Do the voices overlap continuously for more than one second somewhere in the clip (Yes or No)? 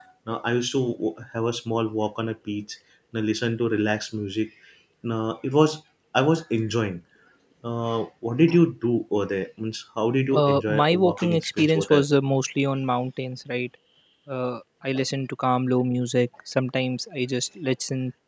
Yes